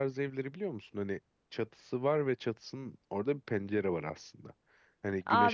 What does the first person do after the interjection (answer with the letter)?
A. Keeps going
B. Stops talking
B